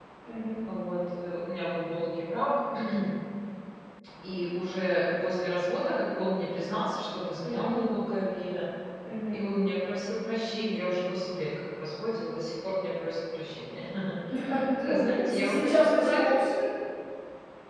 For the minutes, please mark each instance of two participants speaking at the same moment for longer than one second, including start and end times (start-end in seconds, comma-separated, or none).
14.8-16.3